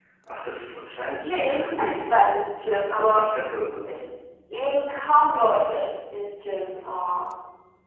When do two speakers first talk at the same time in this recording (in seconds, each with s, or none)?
1.2 s